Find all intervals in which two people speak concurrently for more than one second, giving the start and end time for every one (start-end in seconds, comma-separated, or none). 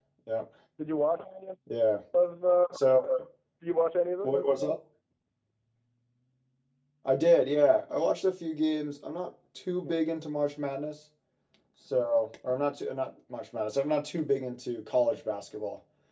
none